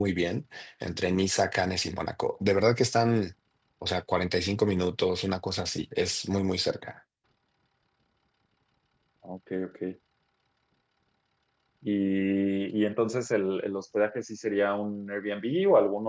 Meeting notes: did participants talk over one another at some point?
No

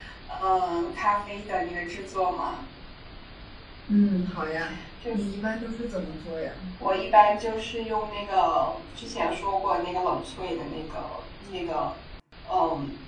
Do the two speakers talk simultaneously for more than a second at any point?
No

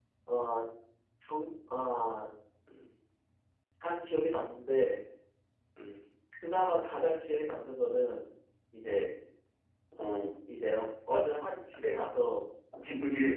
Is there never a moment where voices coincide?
Yes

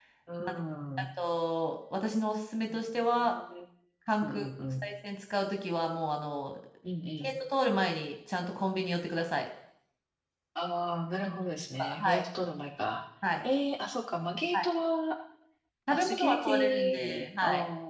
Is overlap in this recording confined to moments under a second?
No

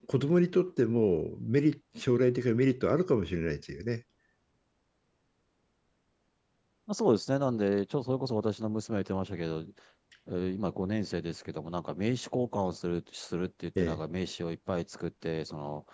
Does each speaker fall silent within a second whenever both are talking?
Yes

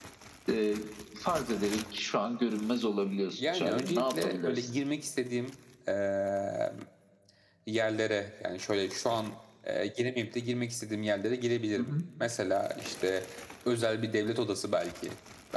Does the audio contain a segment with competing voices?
Yes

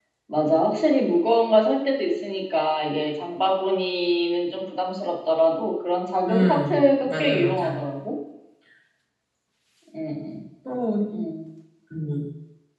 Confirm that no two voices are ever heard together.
No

